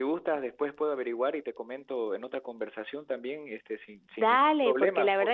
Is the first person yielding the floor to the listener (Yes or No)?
Yes